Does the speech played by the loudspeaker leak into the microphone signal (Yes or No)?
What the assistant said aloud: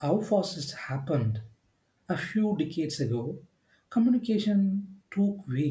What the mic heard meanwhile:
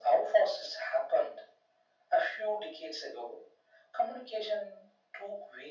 Yes